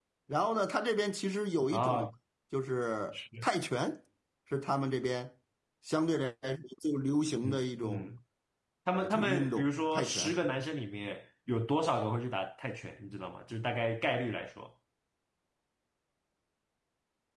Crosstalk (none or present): present